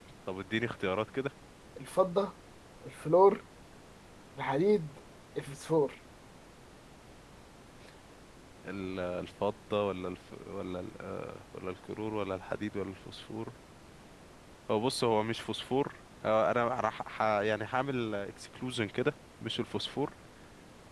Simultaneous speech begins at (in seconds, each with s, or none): none